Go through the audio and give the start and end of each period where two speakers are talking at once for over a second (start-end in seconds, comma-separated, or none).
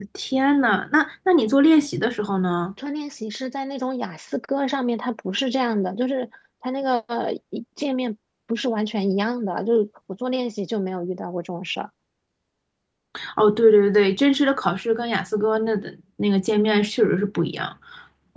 none